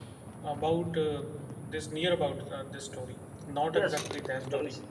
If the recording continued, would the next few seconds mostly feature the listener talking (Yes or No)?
Yes